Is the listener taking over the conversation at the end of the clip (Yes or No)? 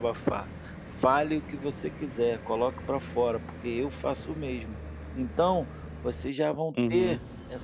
No